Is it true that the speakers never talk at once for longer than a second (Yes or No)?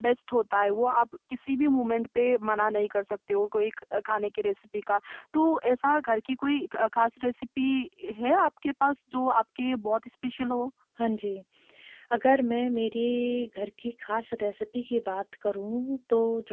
Yes